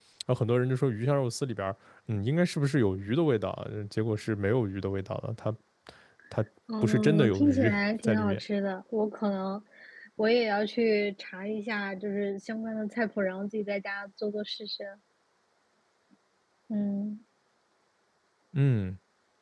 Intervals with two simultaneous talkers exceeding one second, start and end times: 6.8-8.4

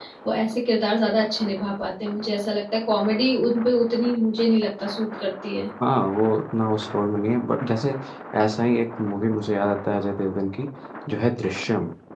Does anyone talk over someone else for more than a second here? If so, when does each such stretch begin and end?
none

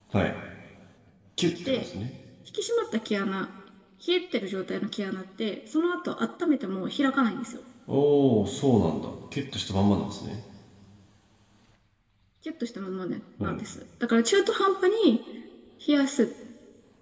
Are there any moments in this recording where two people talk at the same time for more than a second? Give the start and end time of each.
none

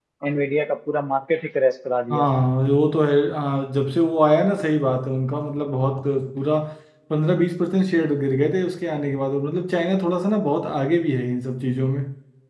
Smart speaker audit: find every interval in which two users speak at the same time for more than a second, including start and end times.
none

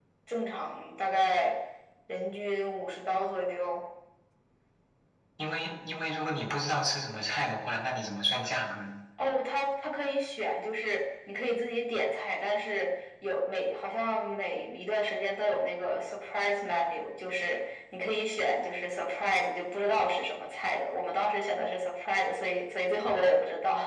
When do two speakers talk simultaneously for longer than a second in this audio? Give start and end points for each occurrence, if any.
none

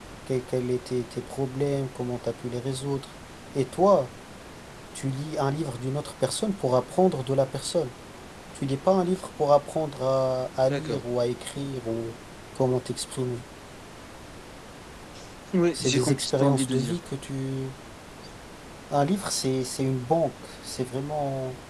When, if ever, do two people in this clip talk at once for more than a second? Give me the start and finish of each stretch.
15.7-17.0

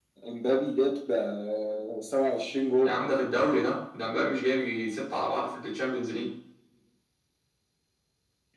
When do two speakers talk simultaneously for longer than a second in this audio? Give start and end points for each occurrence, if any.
none

